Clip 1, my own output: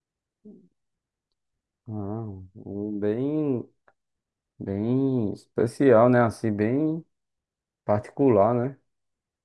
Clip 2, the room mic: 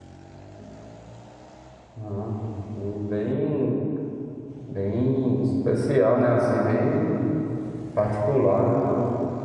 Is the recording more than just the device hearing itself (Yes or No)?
No